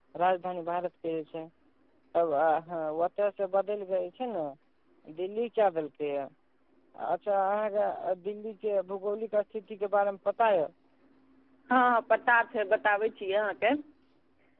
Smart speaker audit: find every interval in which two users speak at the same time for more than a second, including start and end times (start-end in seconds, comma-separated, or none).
none